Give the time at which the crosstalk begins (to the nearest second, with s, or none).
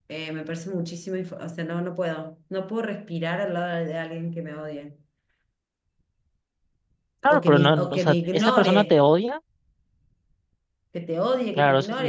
7 s